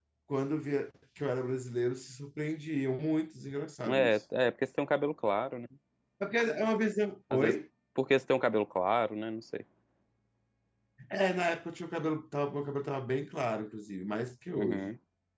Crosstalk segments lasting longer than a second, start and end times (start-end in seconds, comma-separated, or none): none